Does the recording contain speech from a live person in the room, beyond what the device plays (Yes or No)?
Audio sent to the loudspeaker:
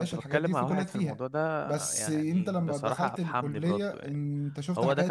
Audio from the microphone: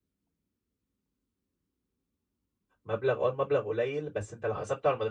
Yes